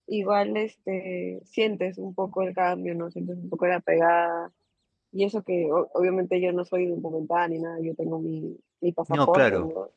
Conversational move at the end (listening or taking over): listening